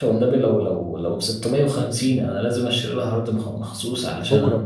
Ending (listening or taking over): listening